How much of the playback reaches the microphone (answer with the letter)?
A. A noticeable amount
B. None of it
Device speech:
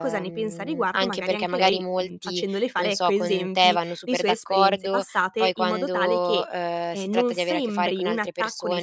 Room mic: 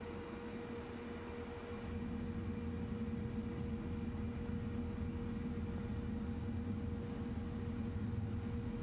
B